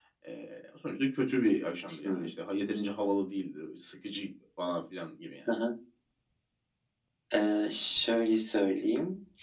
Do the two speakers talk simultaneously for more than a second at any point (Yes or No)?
No